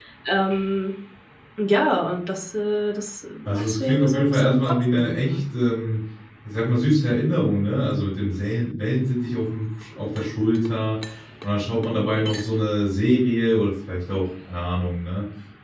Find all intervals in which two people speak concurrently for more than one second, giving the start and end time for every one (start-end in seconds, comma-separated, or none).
3.5-5.4